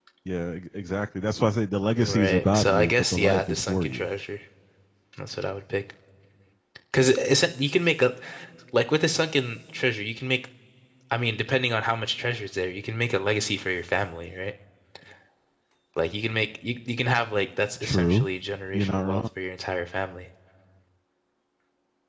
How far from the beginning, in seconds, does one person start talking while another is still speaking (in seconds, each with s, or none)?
2.0 s